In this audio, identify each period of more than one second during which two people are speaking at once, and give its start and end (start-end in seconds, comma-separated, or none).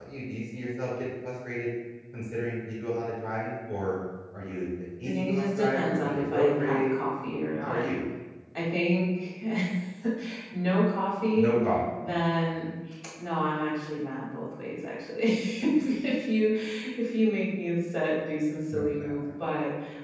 5.0-6.9